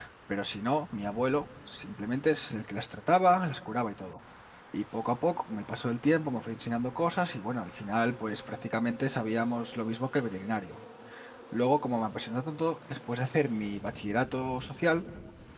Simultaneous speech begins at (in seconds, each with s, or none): none